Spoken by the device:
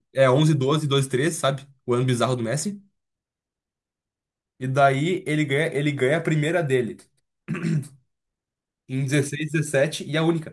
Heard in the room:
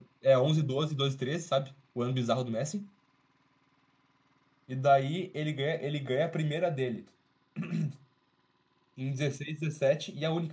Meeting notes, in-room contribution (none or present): none